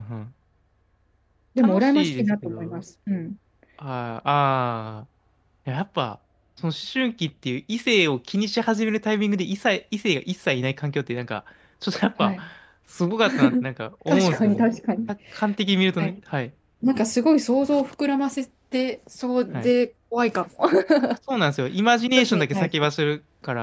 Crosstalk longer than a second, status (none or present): present